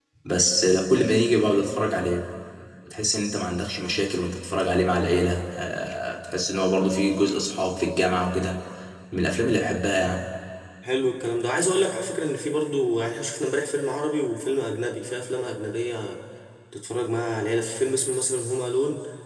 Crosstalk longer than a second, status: none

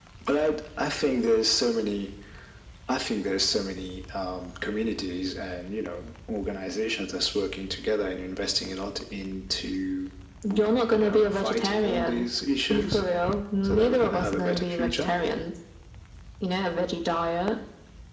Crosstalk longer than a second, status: present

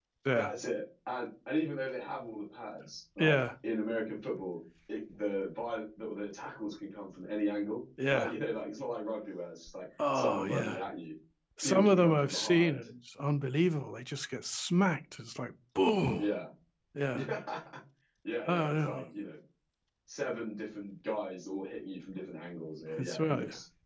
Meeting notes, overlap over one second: present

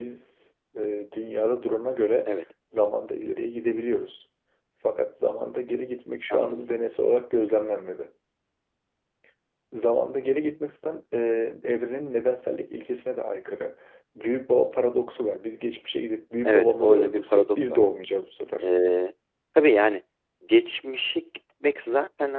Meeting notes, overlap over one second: present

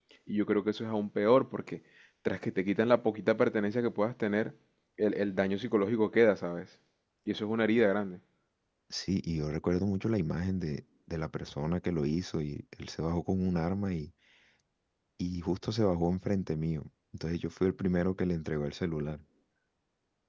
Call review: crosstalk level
none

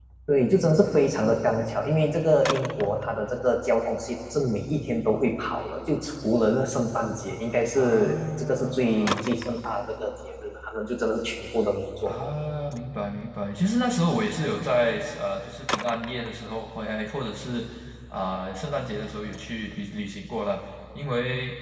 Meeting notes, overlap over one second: present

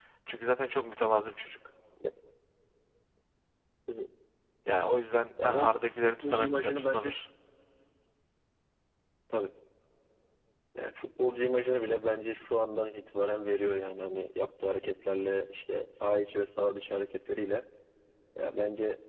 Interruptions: present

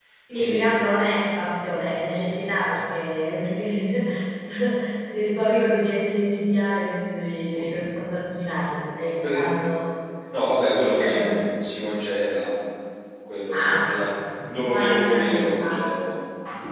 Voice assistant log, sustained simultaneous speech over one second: present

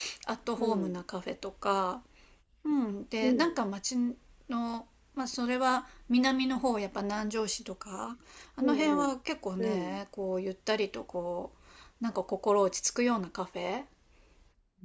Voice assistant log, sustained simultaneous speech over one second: none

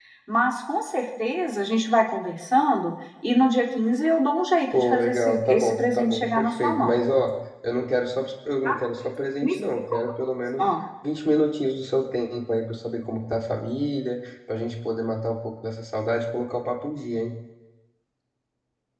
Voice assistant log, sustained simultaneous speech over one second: present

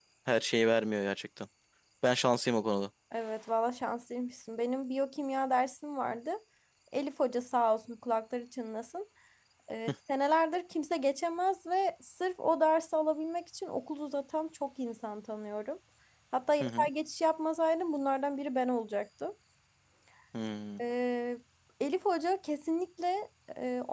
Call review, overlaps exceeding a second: none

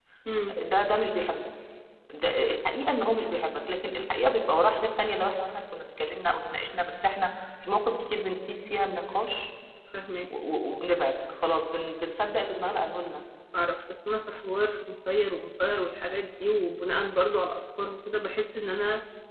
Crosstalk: none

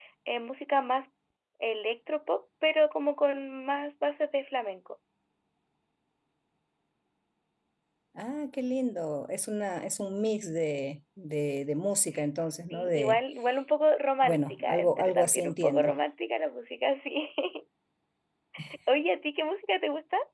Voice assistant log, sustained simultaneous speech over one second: present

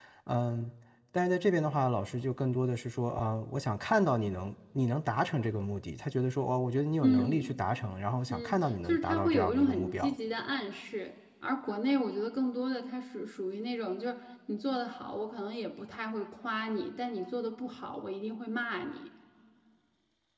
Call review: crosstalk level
present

